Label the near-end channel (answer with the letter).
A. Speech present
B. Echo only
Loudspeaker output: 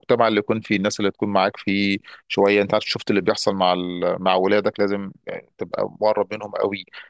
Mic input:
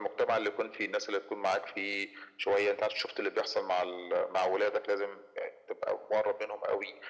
B